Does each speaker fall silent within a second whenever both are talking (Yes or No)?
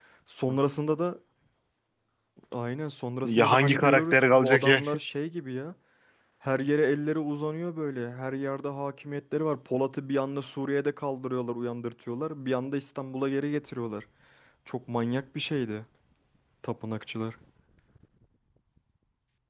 No